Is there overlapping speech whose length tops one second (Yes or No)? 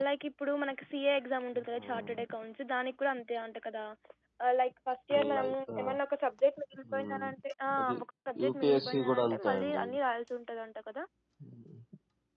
Yes